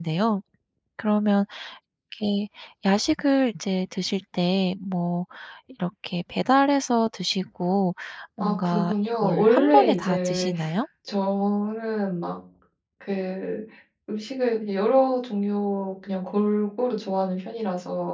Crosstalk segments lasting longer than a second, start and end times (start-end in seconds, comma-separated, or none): 8.4-10.5